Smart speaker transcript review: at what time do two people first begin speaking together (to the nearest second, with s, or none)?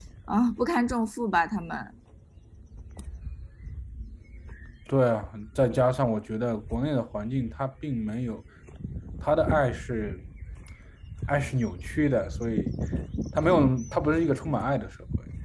none